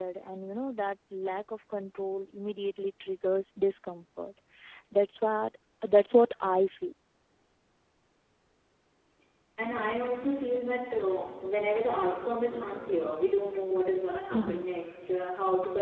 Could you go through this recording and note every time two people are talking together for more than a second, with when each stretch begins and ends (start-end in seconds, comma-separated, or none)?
none